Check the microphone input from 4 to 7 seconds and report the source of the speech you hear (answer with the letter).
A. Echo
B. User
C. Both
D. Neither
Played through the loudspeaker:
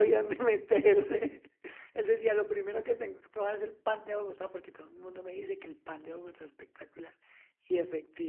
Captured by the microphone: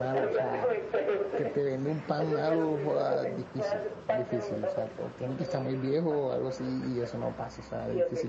C